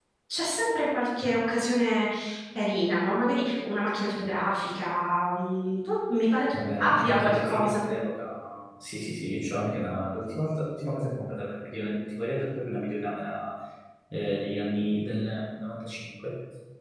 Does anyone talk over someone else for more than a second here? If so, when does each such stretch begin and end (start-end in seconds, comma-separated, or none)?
6.5-7.9